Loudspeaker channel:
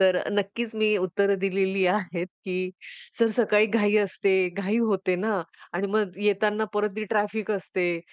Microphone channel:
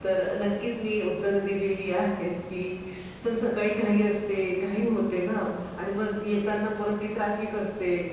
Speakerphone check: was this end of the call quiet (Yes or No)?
Yes